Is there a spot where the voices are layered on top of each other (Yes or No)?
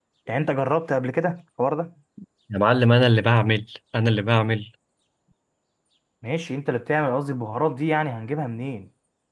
No